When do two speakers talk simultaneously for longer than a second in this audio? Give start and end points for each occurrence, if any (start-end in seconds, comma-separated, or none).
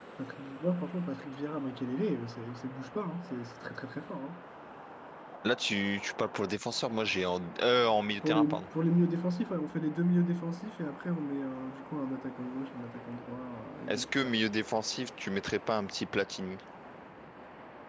none